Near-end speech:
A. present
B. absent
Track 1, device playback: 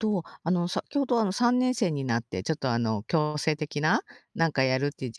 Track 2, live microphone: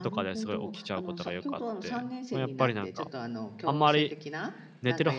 A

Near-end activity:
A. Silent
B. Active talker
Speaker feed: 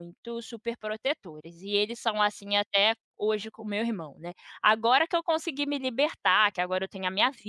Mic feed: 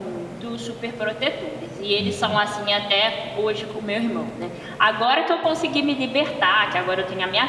B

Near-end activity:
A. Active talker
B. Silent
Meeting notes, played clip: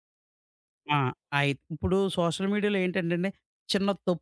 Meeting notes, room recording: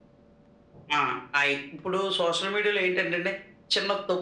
B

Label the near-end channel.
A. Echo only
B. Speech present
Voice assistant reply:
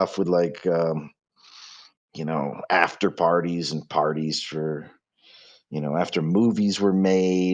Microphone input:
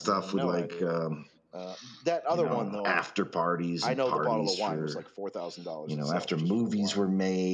B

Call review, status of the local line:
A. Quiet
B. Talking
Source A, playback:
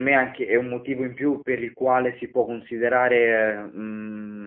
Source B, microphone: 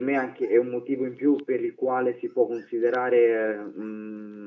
A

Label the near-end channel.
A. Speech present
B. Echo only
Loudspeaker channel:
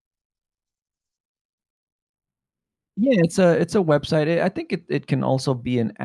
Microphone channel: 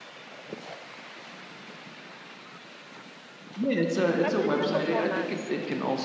A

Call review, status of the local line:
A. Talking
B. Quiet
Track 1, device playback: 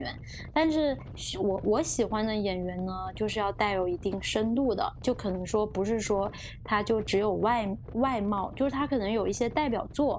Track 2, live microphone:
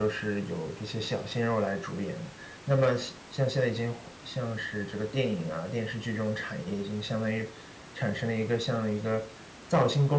A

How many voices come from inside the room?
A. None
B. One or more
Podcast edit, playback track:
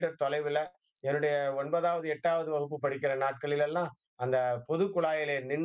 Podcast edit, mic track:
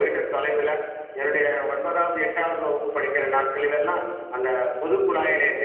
A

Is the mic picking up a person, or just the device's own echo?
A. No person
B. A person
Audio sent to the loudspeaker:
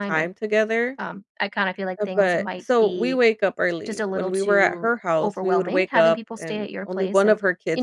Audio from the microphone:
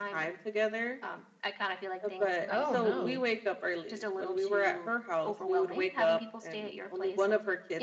B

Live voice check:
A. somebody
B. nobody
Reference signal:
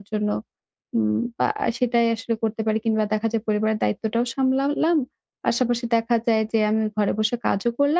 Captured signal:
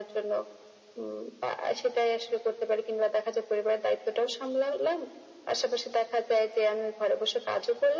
B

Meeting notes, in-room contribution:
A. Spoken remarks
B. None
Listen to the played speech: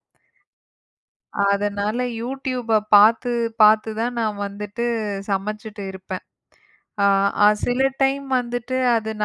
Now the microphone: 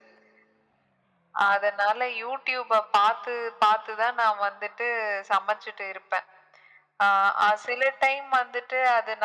B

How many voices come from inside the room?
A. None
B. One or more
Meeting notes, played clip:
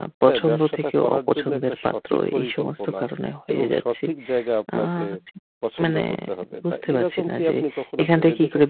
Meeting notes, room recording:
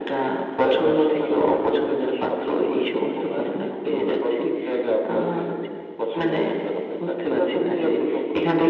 A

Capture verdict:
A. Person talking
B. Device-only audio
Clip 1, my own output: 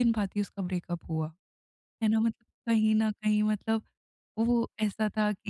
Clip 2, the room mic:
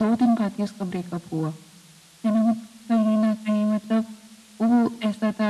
B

